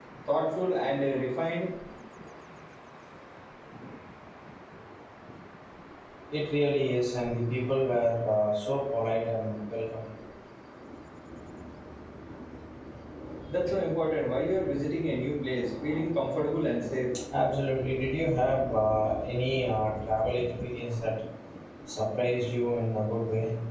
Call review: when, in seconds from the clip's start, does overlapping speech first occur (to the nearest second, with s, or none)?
none